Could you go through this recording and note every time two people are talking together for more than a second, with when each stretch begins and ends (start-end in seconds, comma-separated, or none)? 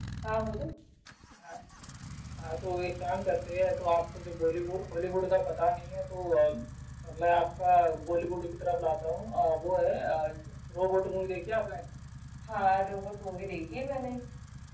none